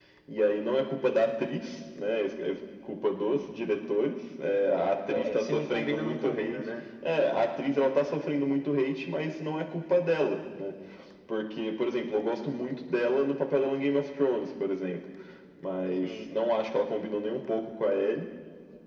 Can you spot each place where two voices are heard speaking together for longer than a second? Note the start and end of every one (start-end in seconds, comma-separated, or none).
4.5-6.6